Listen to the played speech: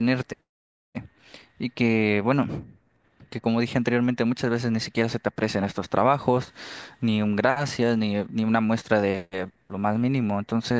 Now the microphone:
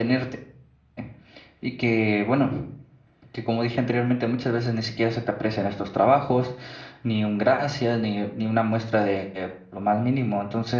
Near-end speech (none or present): none